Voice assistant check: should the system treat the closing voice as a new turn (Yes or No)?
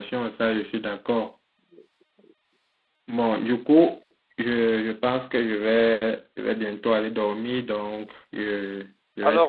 Yes